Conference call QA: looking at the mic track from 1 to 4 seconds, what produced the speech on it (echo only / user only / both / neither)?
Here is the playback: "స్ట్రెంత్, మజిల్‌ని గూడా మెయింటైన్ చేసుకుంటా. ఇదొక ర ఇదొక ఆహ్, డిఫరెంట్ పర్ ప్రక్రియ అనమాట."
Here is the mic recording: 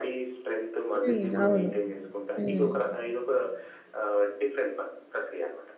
both